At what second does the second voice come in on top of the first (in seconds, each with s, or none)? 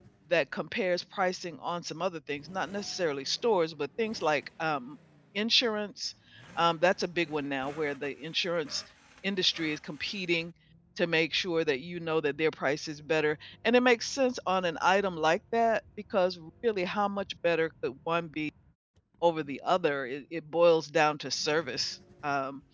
none